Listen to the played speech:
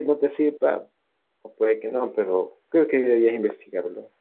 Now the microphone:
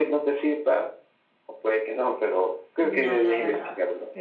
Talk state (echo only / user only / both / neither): both